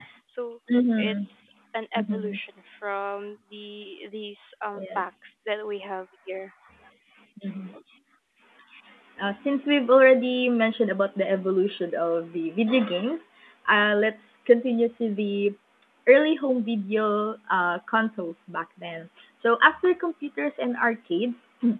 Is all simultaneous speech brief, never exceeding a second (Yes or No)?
Yes